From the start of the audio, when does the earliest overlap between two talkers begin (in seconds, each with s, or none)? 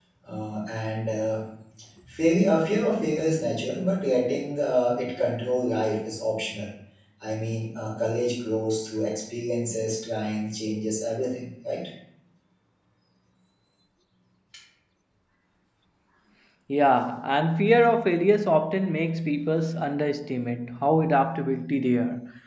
none